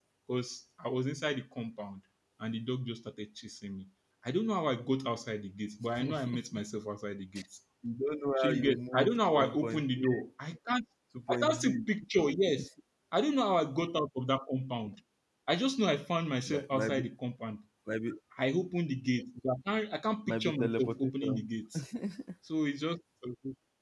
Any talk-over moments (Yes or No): Yes